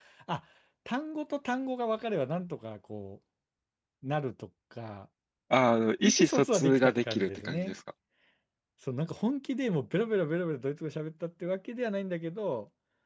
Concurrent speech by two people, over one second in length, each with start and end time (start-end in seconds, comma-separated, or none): 6.0-7.8